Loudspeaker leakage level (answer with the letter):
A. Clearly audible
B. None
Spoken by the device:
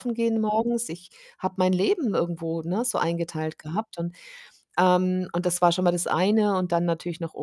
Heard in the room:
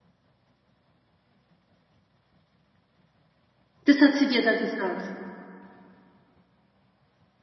B